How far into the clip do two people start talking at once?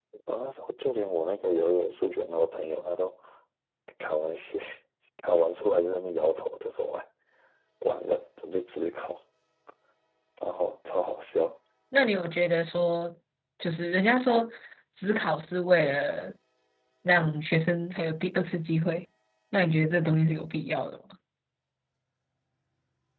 none

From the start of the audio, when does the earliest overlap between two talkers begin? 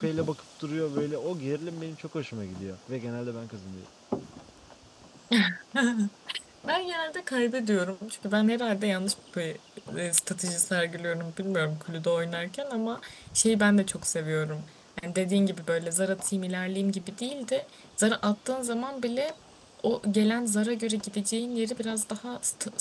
none

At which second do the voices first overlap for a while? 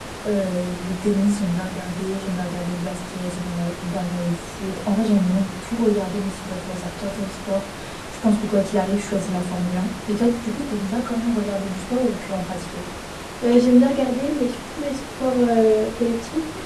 none

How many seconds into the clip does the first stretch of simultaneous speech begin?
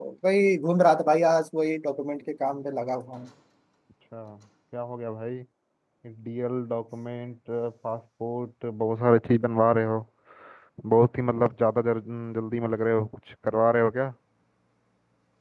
none

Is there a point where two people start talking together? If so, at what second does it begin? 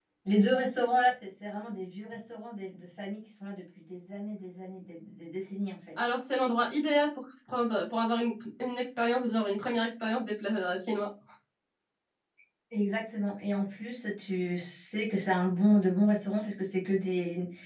none

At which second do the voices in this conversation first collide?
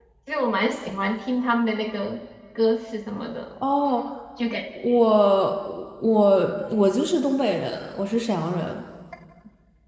none

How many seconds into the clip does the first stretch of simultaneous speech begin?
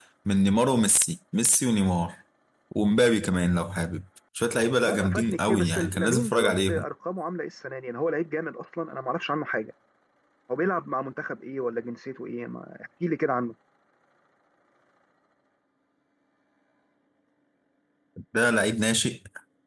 5 s

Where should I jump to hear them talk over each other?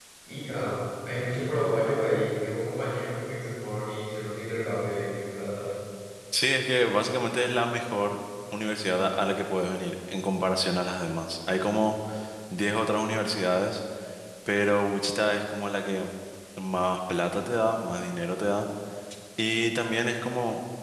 none

